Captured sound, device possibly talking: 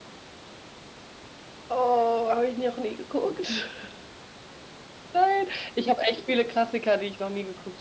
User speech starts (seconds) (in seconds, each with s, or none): none